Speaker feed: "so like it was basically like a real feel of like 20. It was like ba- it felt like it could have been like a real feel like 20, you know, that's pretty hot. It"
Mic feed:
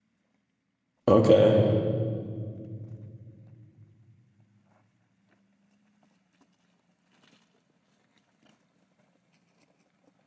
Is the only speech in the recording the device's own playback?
No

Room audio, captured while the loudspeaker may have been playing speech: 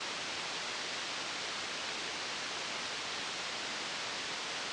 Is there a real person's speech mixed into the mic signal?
No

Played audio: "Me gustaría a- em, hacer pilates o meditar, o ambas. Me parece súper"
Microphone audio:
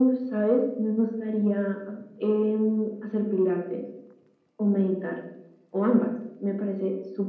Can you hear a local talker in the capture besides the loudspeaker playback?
No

